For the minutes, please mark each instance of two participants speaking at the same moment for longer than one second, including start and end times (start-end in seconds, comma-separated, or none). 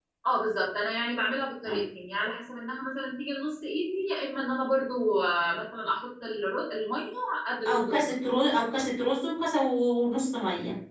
none